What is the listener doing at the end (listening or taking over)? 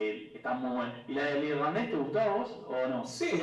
taking over